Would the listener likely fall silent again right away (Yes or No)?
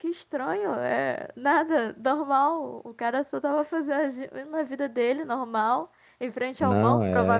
Yes